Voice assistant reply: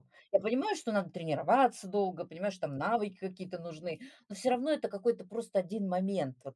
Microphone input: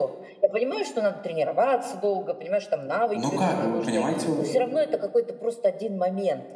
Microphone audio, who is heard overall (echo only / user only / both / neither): both